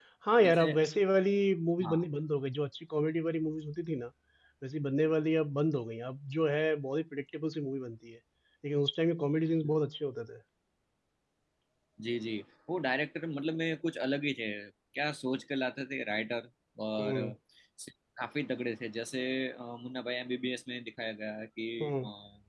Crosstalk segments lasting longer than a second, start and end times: none

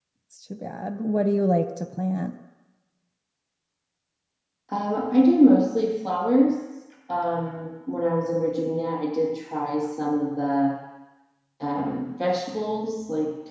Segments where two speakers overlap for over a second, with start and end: none

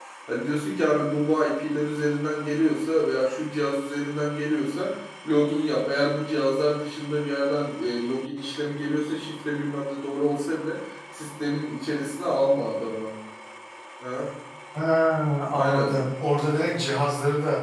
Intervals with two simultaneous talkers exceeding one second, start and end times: none

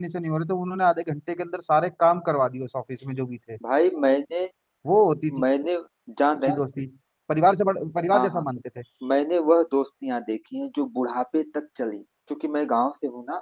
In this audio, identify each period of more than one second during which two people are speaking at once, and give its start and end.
none

